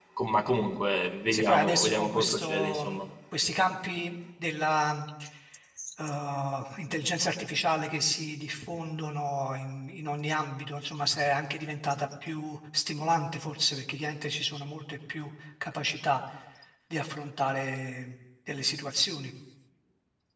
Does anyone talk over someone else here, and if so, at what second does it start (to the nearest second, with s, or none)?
1 s